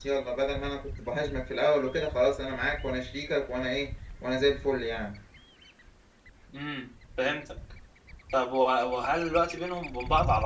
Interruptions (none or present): none